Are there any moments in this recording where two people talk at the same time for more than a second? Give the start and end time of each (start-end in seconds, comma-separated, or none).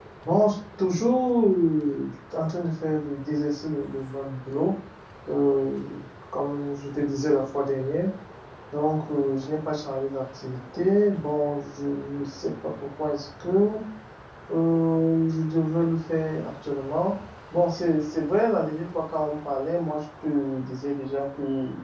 none